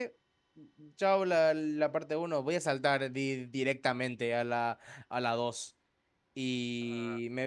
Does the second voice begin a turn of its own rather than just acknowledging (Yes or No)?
No